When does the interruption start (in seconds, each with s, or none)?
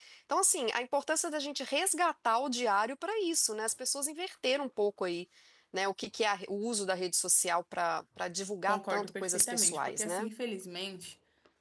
8.7 s